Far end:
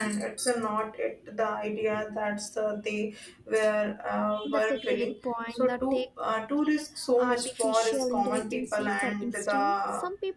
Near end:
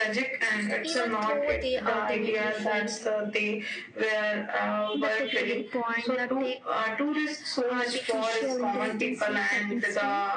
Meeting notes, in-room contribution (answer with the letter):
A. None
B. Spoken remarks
B